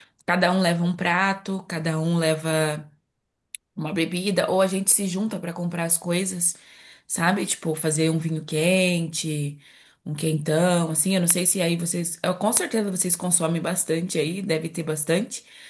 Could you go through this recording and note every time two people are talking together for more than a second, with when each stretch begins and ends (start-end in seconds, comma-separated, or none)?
none